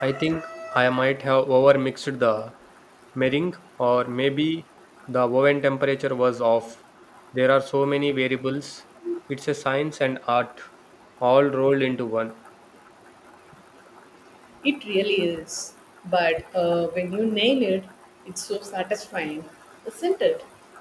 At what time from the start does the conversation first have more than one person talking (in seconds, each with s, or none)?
none